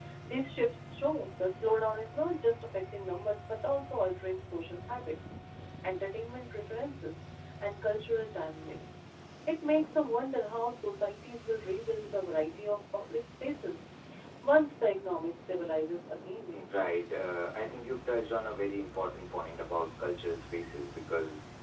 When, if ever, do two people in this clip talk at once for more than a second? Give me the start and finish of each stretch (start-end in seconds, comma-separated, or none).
none